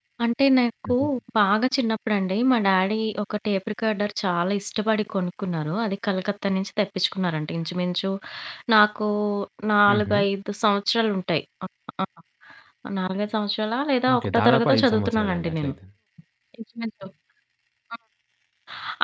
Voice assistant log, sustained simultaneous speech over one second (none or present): present